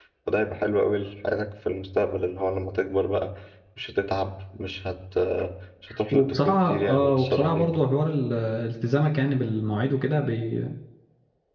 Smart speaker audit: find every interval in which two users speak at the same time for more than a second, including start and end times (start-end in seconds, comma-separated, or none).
6.1-7.7